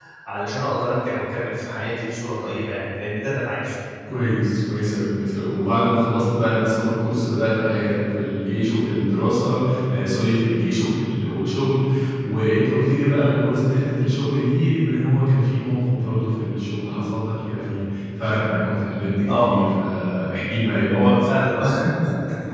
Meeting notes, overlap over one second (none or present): none